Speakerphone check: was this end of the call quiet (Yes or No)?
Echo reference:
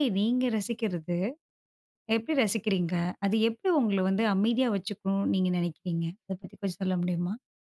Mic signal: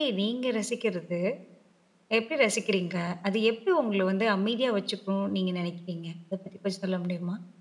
Yes